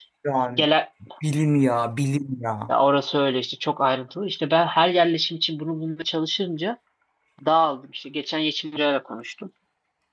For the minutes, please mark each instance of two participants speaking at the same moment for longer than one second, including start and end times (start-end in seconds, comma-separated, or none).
none